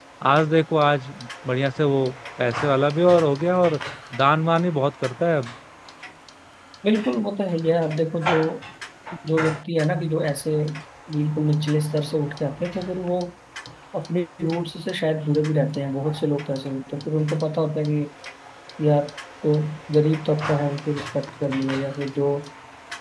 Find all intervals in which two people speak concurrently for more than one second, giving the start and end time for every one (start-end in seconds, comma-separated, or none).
none